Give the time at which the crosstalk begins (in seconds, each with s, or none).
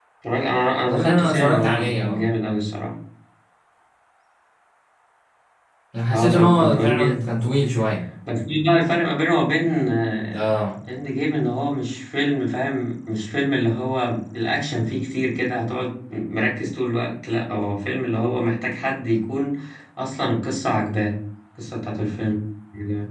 0.9 s